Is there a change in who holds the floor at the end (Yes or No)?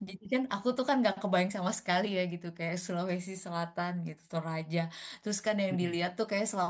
No